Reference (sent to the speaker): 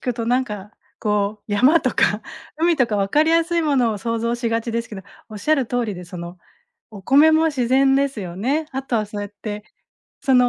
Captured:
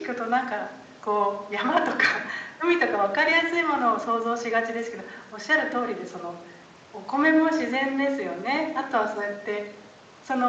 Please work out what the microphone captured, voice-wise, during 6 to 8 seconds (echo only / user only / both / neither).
echo only